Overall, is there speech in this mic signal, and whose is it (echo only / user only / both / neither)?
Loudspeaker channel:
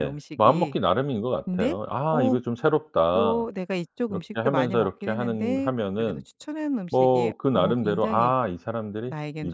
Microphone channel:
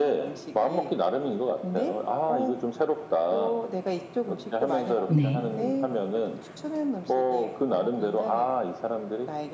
both